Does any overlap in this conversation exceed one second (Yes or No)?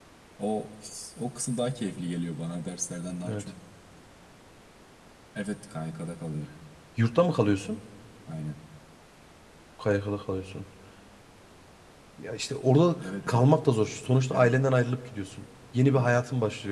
No